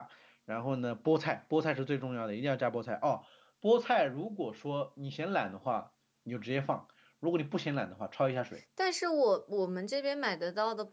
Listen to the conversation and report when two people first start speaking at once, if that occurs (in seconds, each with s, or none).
none